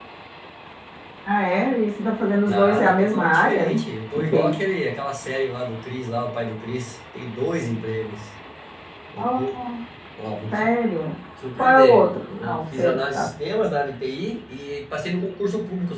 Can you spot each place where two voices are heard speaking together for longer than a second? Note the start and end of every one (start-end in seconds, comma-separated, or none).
2.5-3.8, 11.6-13.3